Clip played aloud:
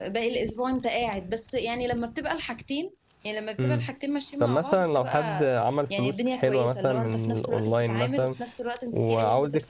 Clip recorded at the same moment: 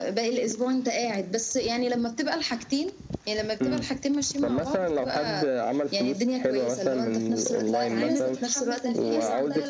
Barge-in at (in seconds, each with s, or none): 7.7 s